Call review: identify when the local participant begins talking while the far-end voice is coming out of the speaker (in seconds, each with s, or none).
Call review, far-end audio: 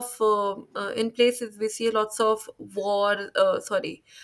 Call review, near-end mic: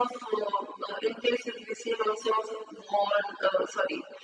none